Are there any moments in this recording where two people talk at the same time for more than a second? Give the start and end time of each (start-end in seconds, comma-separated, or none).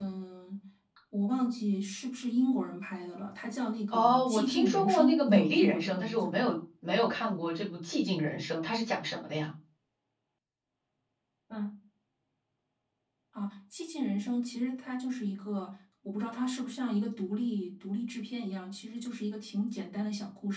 3.9-6.5